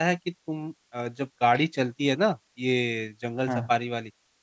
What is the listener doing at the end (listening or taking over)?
listening